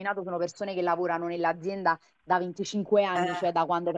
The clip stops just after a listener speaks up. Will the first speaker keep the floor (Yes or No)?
Yes